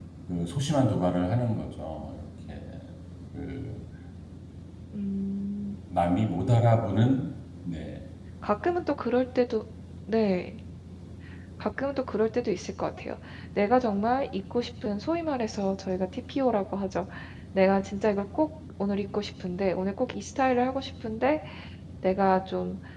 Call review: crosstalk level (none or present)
none